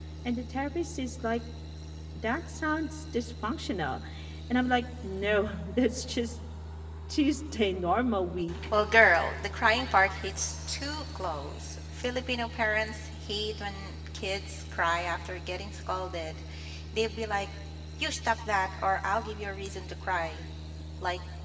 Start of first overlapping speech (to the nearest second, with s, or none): none